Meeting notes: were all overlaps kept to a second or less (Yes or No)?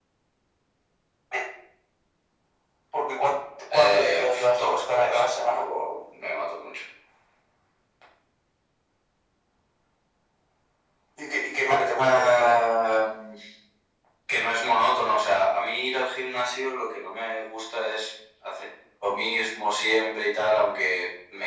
No